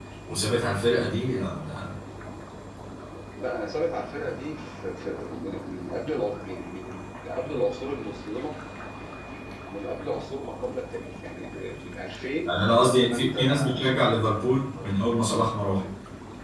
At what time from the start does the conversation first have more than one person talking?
12.5 s

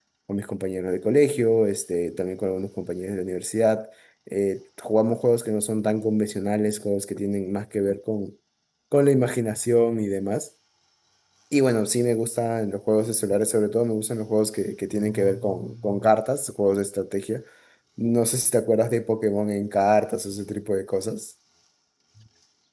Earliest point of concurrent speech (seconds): none

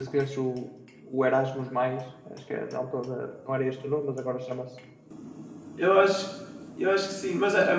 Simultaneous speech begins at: none

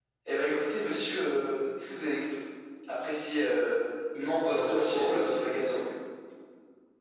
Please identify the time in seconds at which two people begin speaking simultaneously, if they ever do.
4.5 s

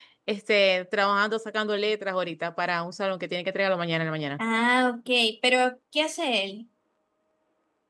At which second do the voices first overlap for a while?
none

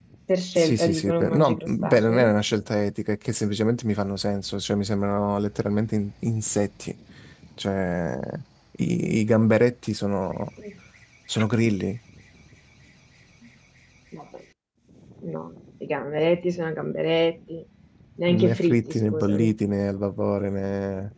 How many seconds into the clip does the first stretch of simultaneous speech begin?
0.6 s

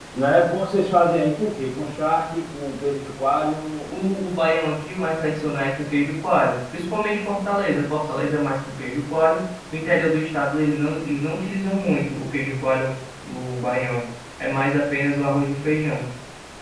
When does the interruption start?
none

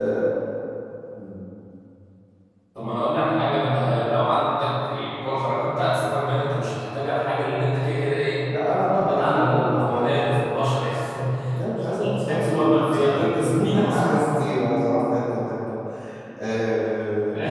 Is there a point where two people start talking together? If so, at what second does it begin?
8.9 s

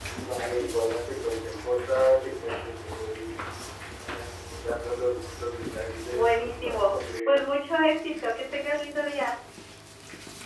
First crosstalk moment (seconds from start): 6.1 s

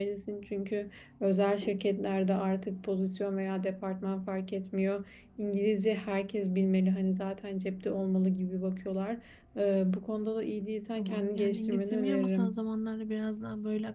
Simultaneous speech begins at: 11.0 s

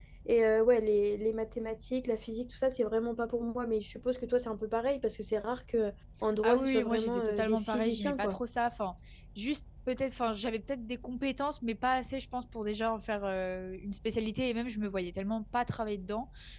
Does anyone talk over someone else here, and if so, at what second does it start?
6.4 s

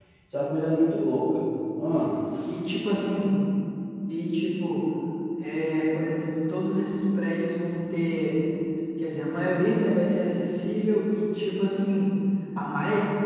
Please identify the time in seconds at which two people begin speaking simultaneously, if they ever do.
none

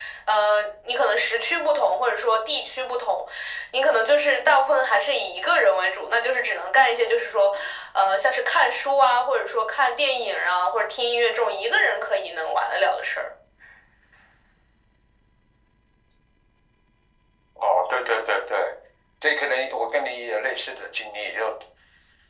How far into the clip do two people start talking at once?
none

